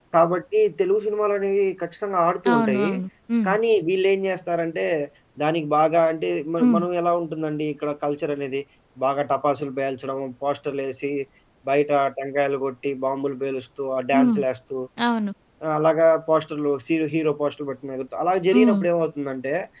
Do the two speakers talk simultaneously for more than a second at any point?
No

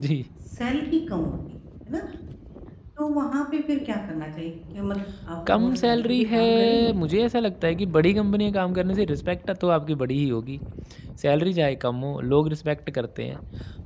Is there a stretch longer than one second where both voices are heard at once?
Yes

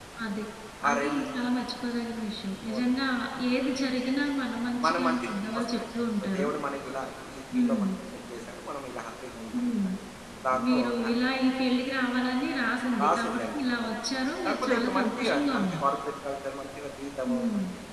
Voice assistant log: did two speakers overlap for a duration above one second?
Yes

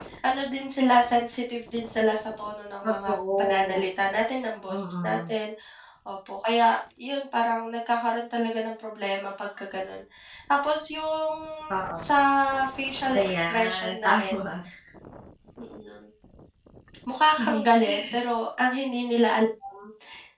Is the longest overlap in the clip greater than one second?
Yes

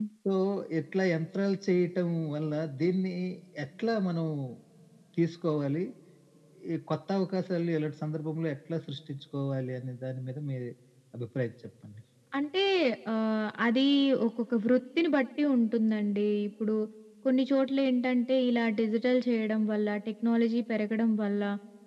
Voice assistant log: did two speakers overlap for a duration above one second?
No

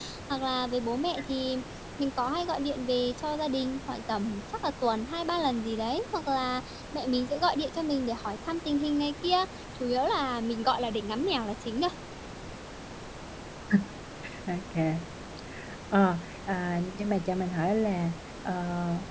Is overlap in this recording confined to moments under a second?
Yes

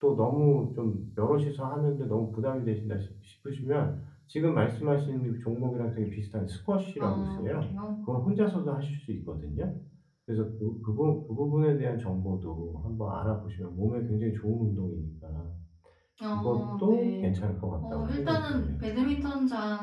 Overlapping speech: Yes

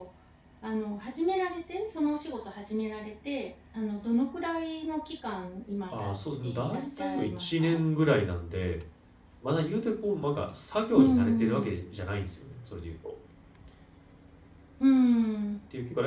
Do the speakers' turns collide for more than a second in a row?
Yes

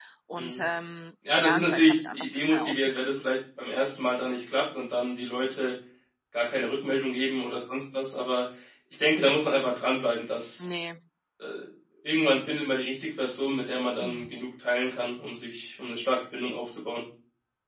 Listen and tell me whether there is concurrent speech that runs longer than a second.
Yes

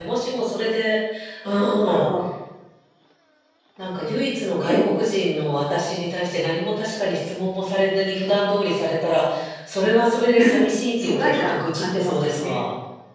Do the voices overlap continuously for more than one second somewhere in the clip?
Yes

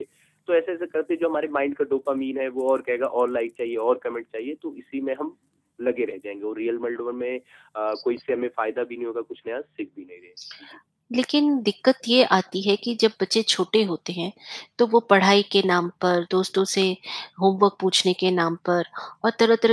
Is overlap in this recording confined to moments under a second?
Yes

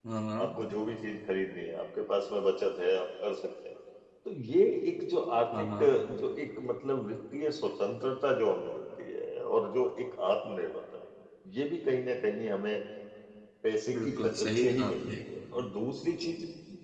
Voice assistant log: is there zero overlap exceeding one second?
No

